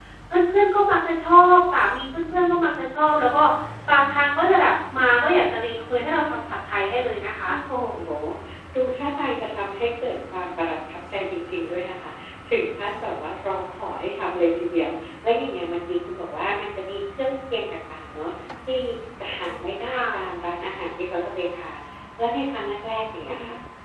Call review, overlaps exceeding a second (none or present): none